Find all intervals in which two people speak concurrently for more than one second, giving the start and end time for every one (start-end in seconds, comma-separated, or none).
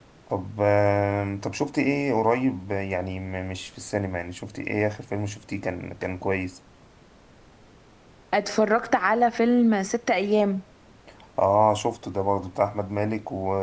none